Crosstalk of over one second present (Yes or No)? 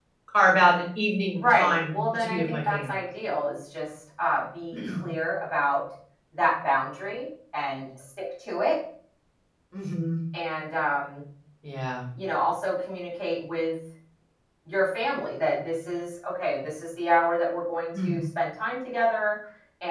Yes